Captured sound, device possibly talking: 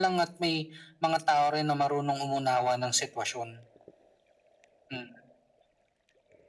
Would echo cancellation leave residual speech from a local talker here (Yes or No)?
No